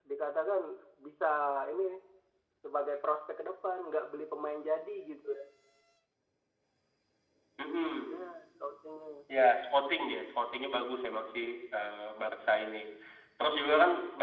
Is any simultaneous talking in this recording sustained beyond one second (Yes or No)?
No